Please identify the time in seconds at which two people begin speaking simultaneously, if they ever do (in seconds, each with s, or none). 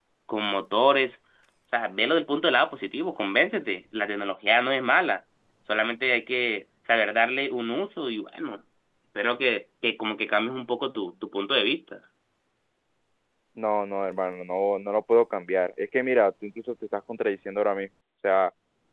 none